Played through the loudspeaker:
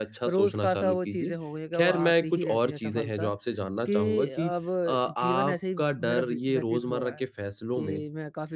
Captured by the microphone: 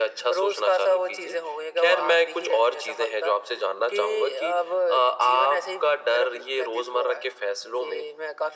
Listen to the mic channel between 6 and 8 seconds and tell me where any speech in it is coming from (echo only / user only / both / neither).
echo only